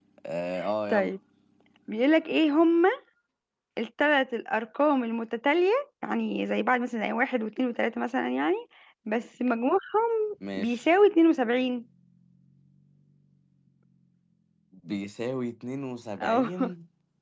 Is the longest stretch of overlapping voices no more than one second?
Yes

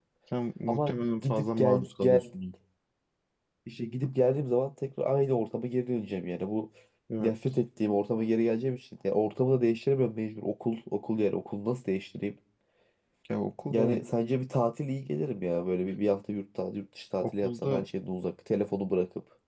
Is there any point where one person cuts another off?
Yes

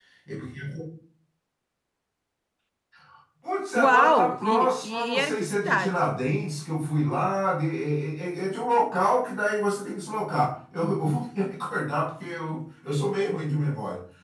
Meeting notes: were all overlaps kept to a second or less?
No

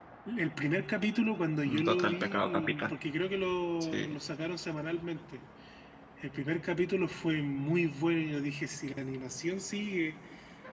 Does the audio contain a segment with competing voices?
Yes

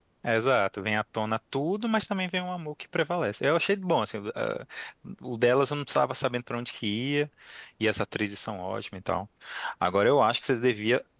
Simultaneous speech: No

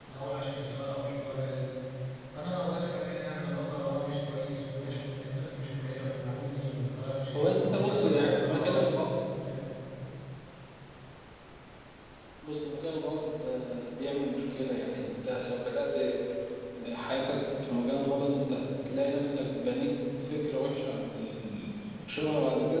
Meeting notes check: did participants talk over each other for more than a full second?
Yes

